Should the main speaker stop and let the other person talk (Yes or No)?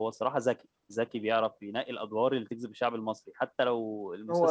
Yes